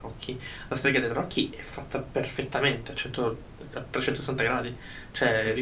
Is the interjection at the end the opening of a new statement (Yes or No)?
No